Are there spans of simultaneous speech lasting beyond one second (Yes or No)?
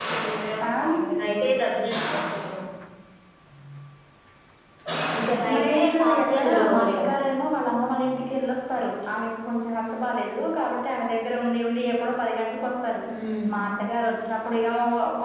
Yes